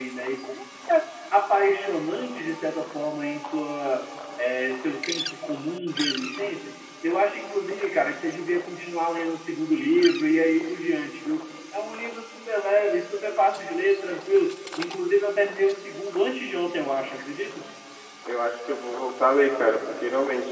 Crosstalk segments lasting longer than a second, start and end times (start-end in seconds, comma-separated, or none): none